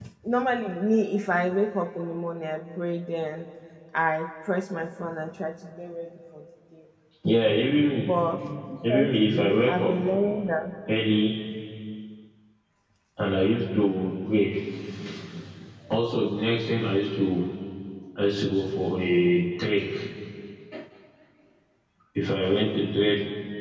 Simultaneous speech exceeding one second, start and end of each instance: 8.9-10.1

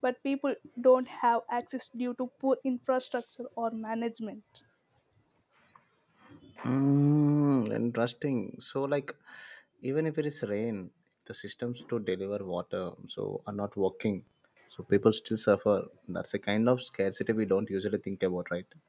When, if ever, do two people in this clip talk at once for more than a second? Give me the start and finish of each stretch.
none

